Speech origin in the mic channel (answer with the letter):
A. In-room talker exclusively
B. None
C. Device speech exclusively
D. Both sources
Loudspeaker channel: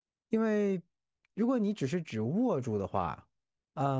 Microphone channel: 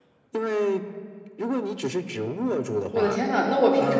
D